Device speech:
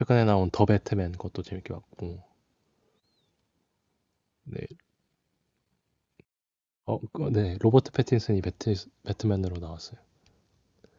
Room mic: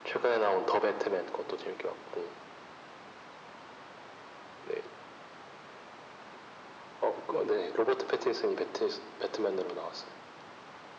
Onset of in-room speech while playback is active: none

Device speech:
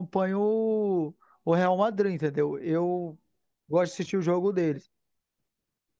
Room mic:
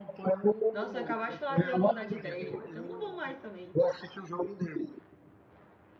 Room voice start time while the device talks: 0.7 s

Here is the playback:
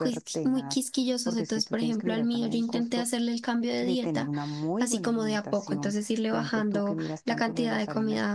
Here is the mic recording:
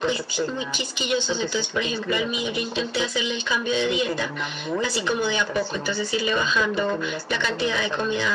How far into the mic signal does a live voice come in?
none

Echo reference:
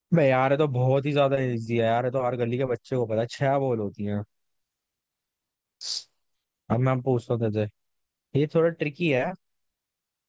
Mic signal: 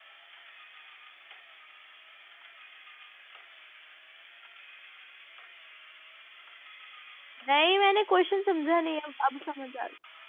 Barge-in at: 7.5 s

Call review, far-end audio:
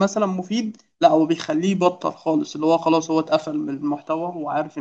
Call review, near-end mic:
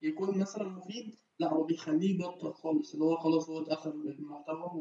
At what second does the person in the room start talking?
none

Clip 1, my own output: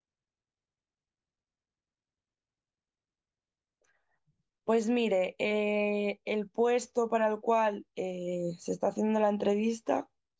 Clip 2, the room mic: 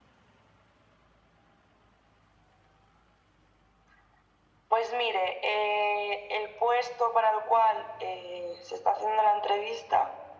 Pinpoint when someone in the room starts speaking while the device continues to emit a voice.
none

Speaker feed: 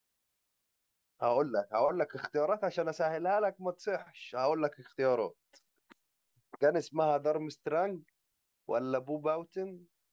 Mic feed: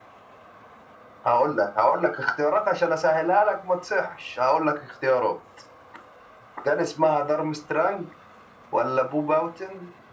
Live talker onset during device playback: none

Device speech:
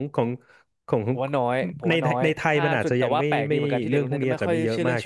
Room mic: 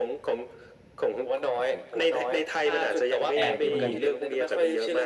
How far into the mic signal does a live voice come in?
3.3 s

